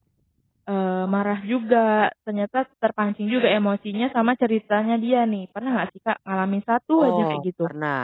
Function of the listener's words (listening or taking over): taking over